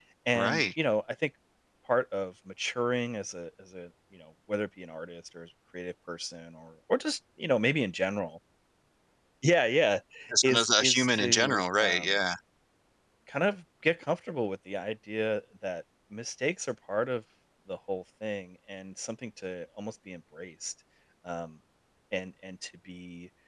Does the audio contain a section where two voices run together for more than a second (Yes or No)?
Yes